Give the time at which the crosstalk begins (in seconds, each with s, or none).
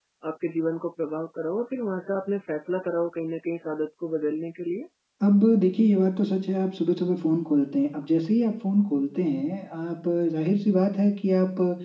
none